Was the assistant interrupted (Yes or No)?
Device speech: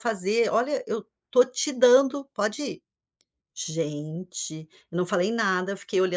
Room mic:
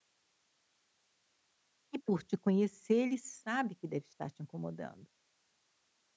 Yes